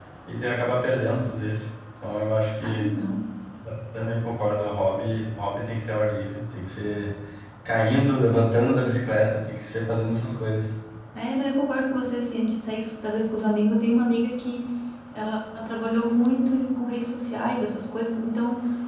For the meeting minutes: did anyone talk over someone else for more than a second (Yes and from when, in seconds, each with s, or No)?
No